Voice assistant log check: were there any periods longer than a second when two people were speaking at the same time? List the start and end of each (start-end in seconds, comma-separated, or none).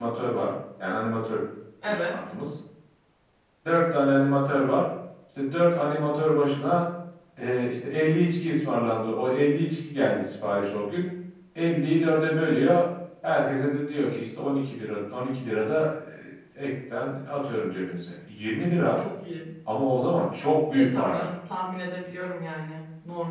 none